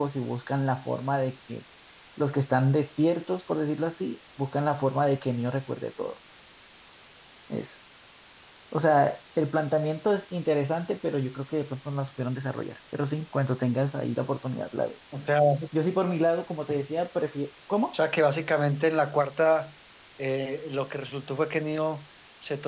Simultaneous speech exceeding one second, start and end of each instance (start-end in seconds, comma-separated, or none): none